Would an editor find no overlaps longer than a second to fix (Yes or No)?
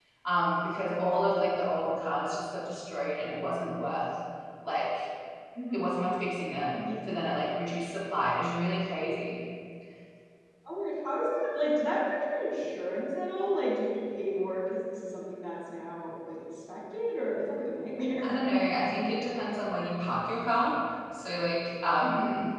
Yes